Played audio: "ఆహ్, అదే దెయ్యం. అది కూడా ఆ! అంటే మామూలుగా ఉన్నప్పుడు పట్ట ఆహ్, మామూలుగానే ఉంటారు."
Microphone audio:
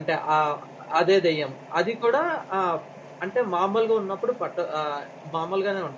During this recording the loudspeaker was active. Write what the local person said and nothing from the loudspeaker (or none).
none